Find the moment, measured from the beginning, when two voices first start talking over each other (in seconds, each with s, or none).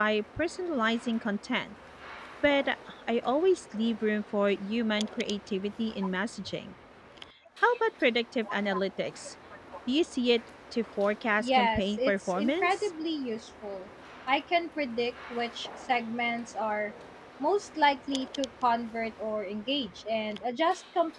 11.4 s